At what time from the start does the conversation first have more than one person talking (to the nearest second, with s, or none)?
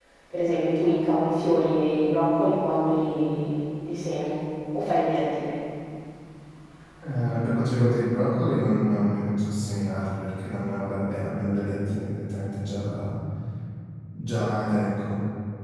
none